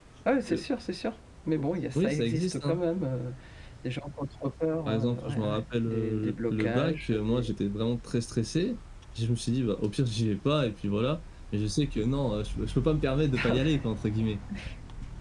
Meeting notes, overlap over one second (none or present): present